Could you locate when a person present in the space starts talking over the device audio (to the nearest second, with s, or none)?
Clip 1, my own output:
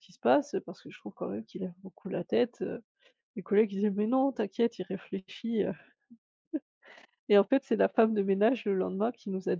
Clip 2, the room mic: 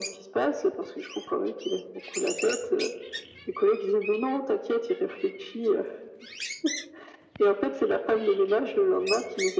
none